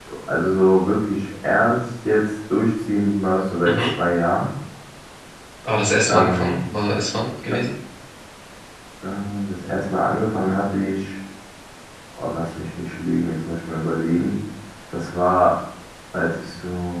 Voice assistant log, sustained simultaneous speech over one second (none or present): none